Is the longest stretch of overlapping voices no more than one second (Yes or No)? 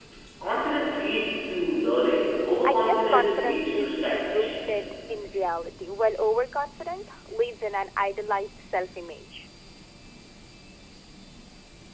No